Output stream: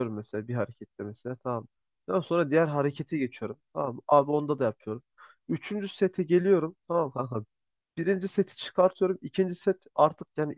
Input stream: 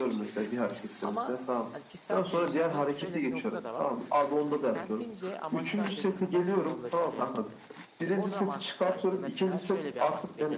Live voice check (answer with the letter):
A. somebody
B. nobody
A